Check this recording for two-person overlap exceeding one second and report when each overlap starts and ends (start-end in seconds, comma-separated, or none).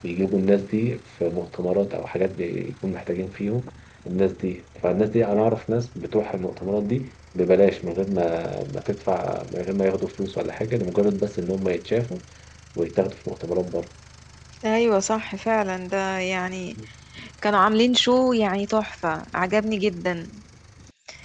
none